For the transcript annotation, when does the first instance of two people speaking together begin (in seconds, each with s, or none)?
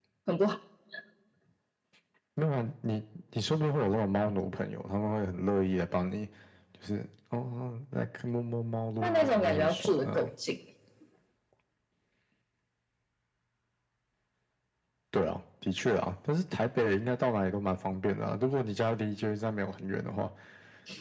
9.0 s